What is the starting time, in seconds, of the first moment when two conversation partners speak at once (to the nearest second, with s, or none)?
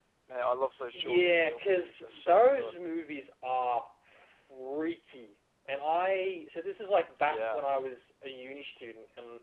1 s